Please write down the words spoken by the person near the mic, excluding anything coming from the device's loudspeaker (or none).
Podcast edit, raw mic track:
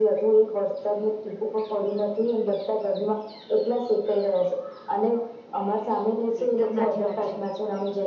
એકદમ સાચી વાત છે